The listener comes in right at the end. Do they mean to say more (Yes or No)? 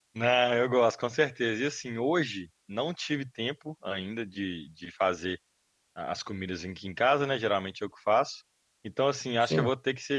No